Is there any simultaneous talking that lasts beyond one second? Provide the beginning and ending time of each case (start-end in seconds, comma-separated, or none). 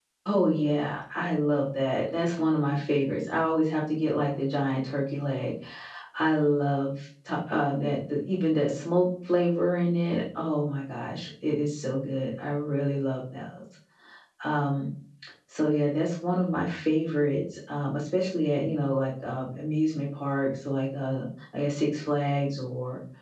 none